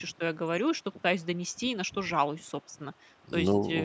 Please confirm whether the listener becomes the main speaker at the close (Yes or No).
Yes